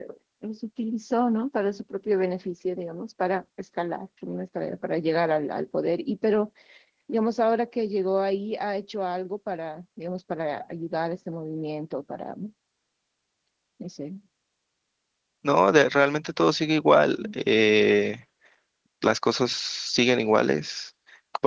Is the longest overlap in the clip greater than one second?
No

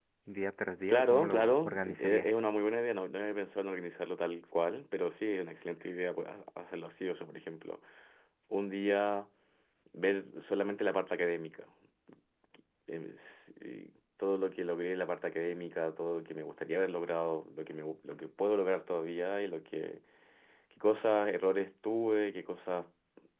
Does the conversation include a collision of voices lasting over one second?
Yes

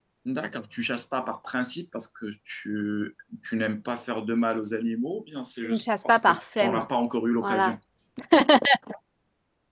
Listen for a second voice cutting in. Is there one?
Yes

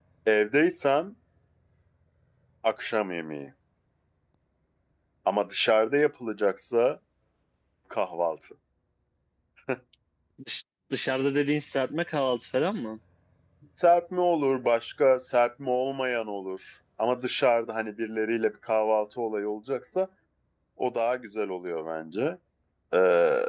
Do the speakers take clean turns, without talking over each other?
Yes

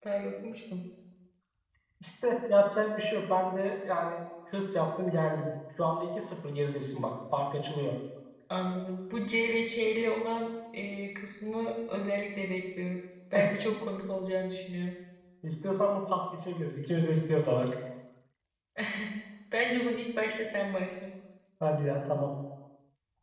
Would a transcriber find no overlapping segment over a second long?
Yes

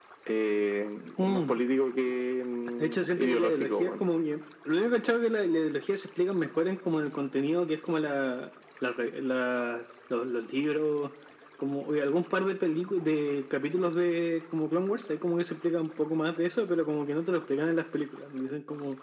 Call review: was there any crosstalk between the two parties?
Yes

